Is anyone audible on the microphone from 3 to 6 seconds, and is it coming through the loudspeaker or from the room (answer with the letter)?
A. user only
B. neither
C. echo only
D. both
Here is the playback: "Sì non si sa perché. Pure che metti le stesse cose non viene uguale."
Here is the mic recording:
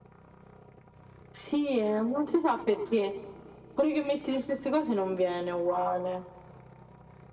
C